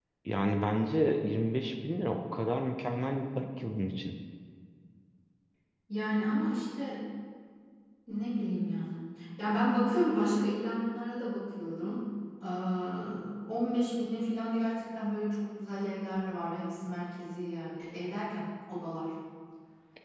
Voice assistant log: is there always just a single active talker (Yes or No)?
Yes